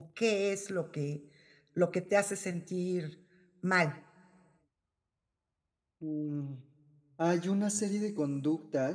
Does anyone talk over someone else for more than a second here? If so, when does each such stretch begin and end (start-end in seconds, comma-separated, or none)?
none